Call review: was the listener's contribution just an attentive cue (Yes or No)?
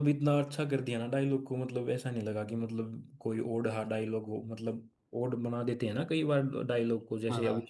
No